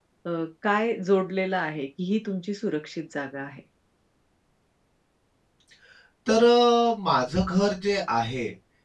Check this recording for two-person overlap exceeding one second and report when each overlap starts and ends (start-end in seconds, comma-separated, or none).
none